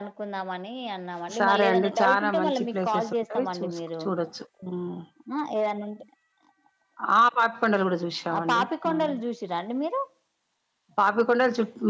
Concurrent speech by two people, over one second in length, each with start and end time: 1.4-4.0

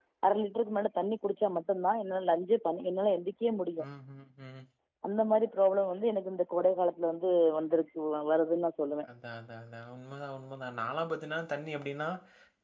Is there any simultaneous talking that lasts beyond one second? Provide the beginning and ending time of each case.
none

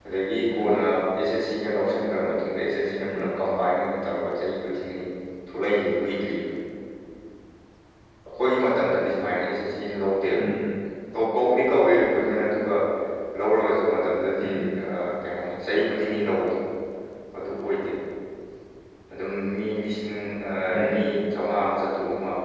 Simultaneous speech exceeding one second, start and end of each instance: none

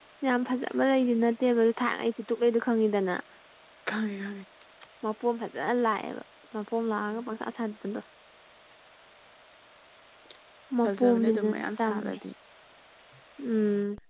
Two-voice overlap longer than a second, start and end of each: 10.8-12.2

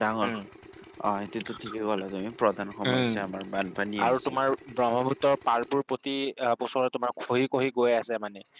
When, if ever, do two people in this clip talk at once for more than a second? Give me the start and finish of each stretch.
none

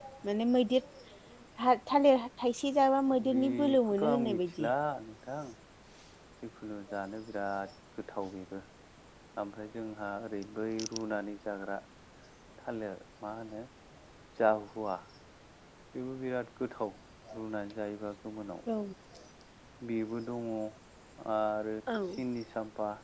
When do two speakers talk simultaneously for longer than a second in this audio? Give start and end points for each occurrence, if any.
3.3-4.7

